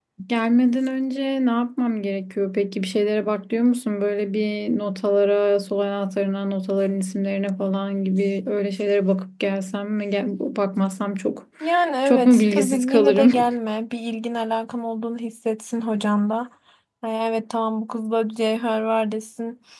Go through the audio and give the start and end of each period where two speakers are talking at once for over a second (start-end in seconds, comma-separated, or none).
12.1-13.3